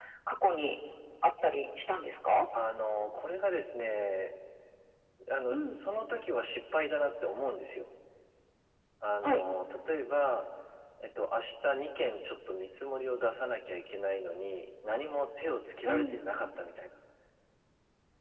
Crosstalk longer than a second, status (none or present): none